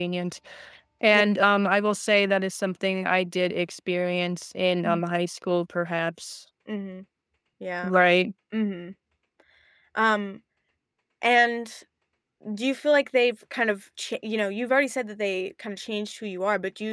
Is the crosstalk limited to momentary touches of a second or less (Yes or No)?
Yes